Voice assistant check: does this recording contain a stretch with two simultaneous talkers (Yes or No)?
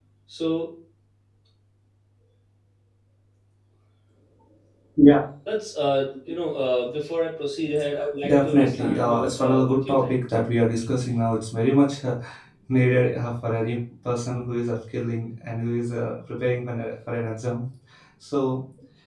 Yes